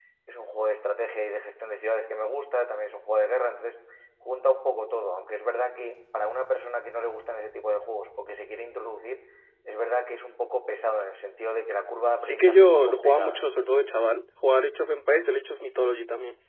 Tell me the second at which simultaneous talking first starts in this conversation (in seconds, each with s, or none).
12.2 s